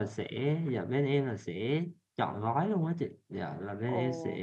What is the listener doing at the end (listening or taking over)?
listening